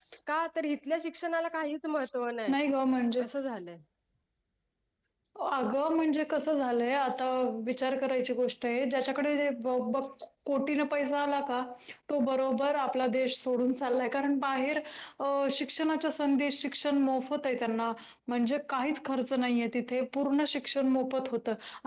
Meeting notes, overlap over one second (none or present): none